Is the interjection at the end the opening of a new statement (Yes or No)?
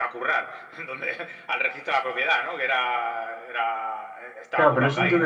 Yes